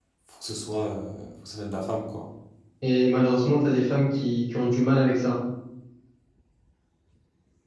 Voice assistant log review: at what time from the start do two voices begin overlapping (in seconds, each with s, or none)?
none